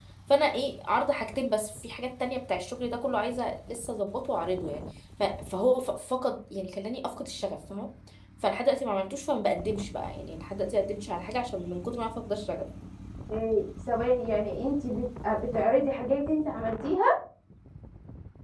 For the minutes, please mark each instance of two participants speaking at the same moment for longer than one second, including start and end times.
none

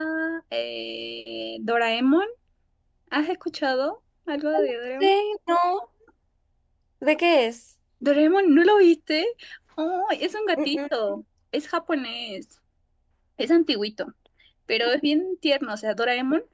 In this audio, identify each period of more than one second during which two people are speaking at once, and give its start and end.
none

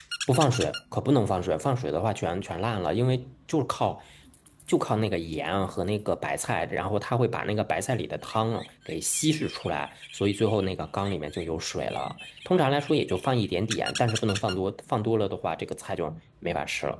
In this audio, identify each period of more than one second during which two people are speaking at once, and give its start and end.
none

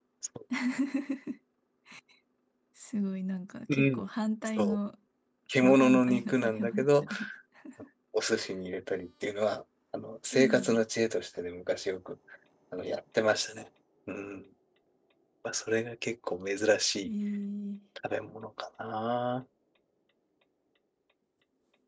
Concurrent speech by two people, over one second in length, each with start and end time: 5.6-7.0

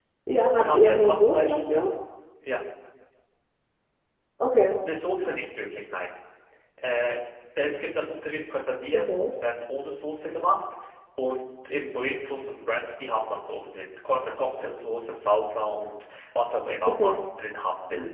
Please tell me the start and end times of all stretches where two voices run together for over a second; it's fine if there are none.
0.6-1.8

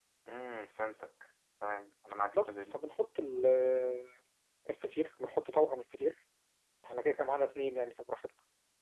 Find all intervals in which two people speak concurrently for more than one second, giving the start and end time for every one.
none

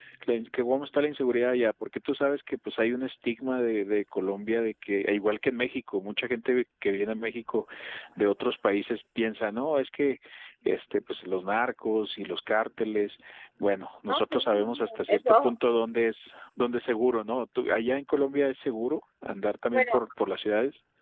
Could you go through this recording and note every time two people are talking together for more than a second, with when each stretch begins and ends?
14.1-15.5

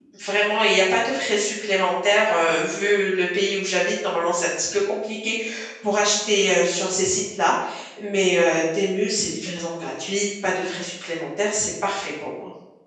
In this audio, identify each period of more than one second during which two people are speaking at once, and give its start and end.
none

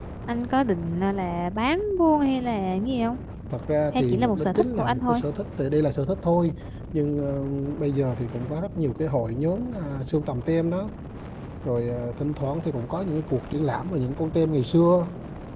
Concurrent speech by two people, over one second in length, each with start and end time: 3.9-5.2

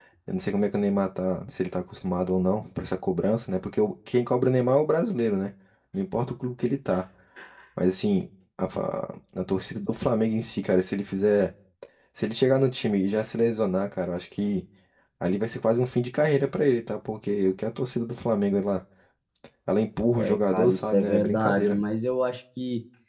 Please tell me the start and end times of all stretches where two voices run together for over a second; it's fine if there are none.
20.1-21.8

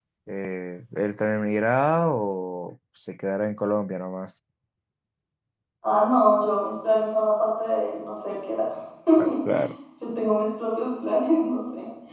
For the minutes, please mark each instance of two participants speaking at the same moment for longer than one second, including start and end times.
none

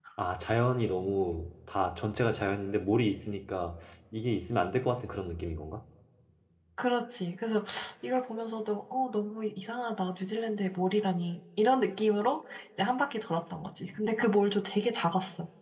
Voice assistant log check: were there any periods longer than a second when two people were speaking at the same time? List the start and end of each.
none

